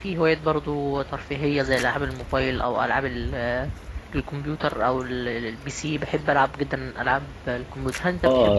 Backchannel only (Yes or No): No